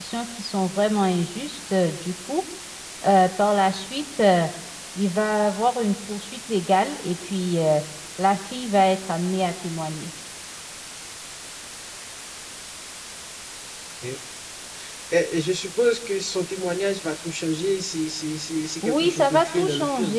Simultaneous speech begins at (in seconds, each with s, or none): 18.8 s